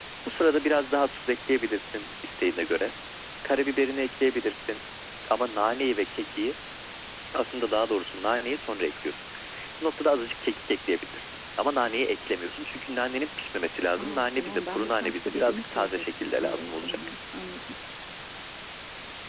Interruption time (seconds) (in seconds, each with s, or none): 14.0 s